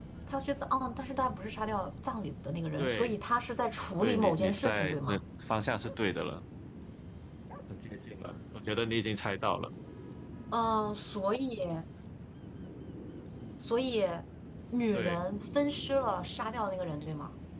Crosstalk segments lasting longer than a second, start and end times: 4.0-5.2

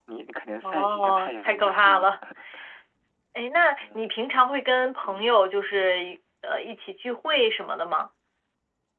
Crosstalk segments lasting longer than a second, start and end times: 0.6-2.1

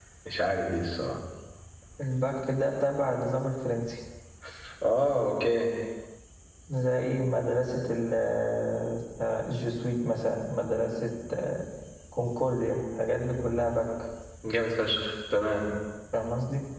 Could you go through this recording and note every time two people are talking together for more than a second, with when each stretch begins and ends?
none

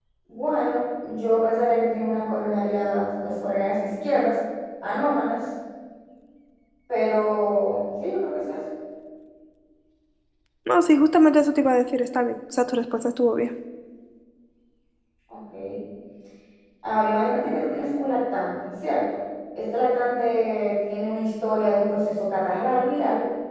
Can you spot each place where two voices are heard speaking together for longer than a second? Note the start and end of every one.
none

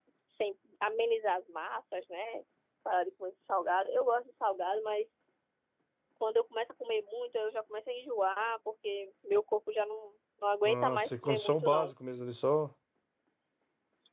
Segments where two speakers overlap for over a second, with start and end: 10.7-11.9

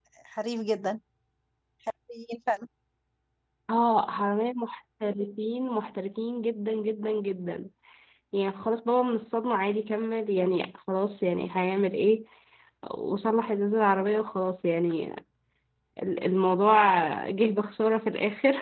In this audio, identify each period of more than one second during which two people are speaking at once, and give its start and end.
none

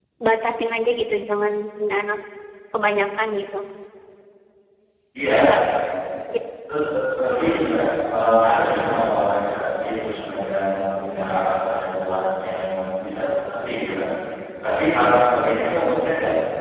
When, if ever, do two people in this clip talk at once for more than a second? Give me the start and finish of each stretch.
none

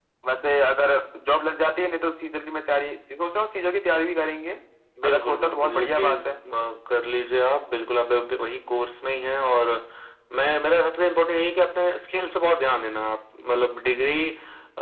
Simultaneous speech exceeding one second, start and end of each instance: 5.0-6.3

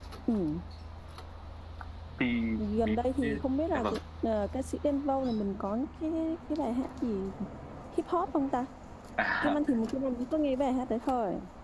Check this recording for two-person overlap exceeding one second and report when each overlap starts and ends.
2.8-4.0

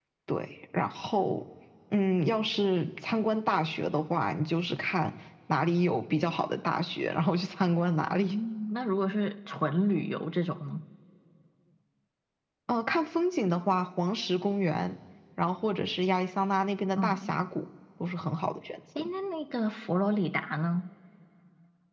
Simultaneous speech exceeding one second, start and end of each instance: none

